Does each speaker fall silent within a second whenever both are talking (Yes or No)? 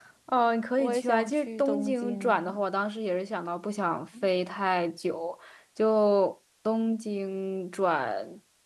No